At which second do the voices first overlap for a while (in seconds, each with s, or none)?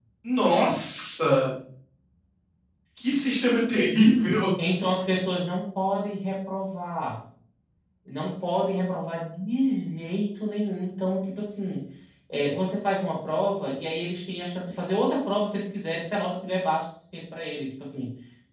none